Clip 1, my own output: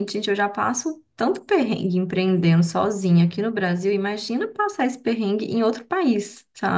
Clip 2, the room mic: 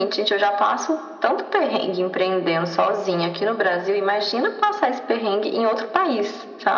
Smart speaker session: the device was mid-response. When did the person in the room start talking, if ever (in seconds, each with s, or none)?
none